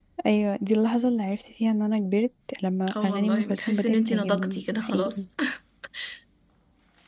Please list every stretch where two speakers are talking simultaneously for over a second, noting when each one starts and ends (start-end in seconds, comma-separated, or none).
3.0-5.2